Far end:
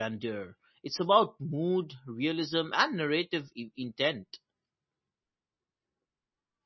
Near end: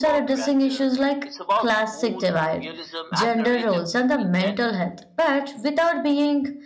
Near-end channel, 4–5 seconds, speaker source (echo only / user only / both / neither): both